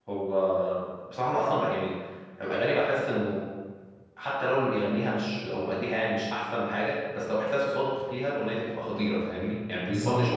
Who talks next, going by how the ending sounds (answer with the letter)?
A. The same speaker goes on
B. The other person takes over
B